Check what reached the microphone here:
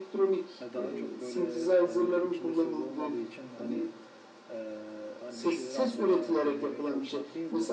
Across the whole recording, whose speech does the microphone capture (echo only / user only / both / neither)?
both